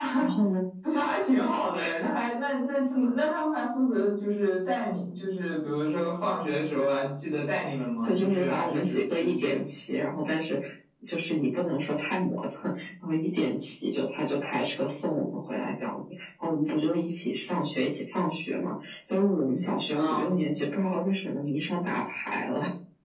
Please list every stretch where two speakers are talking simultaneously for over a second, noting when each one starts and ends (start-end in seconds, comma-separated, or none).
8.0-9.6